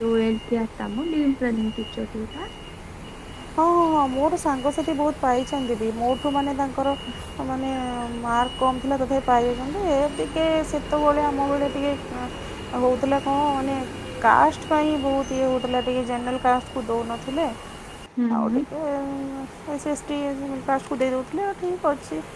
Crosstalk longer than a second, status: none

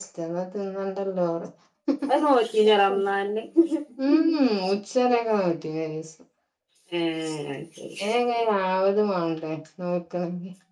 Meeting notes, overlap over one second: none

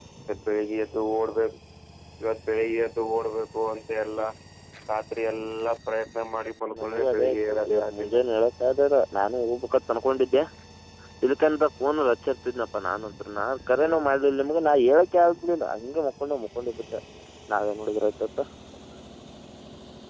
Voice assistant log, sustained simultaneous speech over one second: present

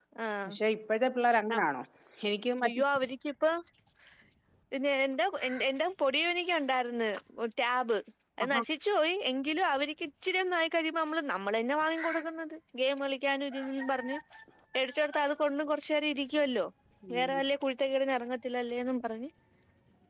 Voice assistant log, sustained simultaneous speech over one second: none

